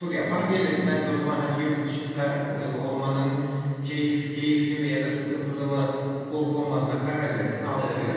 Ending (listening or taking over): taking over